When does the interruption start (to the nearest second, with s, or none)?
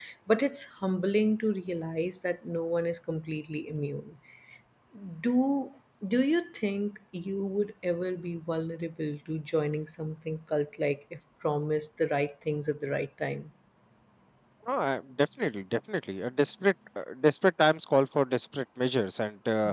none